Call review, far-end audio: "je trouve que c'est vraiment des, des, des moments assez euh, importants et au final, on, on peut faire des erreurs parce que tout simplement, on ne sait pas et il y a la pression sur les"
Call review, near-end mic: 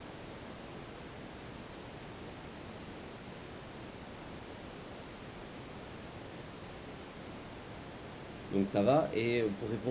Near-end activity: present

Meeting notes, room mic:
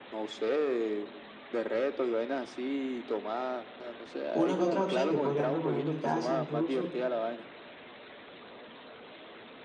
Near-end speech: present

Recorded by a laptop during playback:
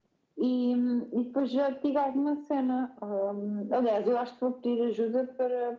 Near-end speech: none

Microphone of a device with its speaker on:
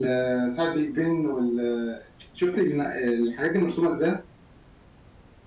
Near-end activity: none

